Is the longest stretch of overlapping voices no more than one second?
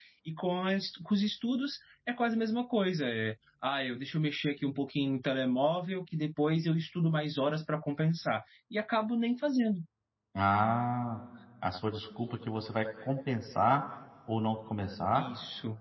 Yes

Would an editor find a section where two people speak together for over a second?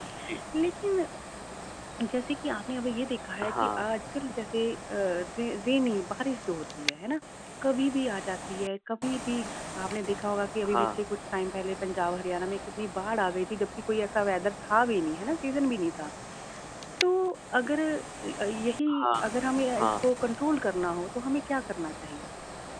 No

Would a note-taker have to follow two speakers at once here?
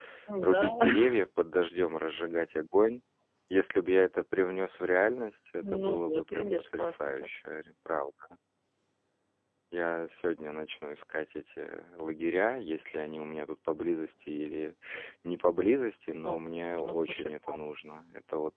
Yes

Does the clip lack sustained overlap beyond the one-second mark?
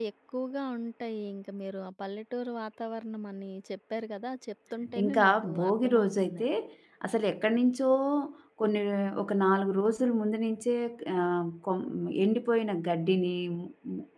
No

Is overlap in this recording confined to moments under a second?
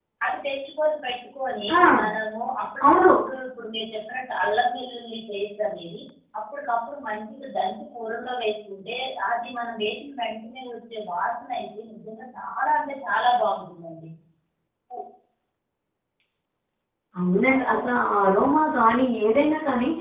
Yes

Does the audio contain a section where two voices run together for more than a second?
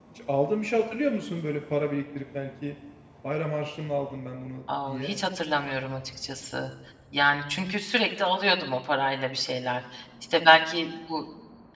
No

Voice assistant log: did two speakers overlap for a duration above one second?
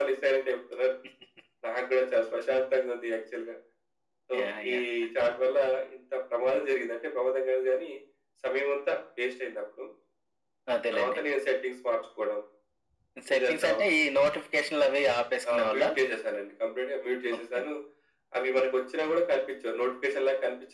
No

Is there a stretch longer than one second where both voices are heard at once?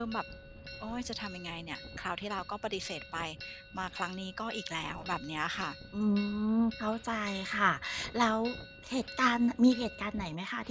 No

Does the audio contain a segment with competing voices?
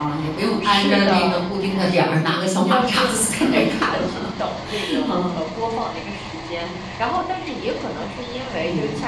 Yes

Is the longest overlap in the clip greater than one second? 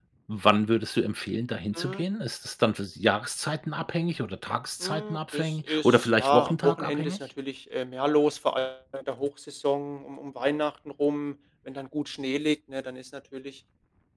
Yes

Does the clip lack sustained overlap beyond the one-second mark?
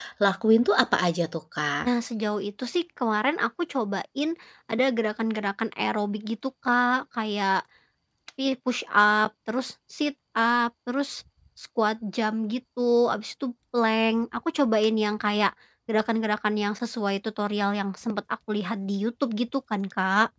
Yes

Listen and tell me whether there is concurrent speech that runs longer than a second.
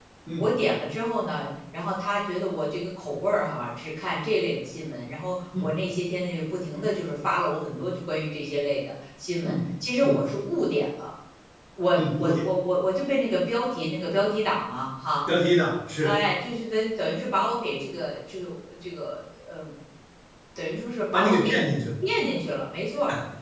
No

